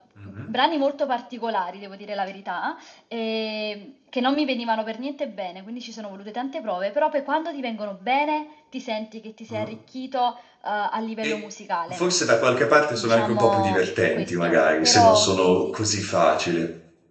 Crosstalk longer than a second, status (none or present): present